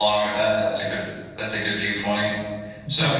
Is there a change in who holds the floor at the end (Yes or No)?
No